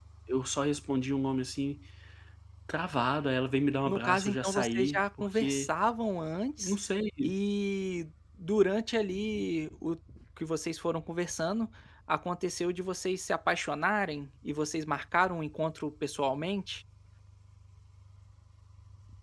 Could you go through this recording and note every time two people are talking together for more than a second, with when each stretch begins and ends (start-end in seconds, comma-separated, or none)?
3.9-5.7